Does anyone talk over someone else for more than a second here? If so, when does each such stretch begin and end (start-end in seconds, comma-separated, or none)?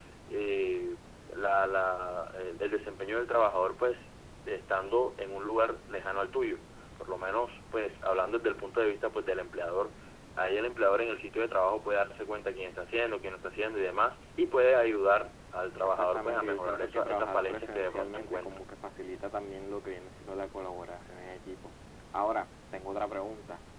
15.8-18.6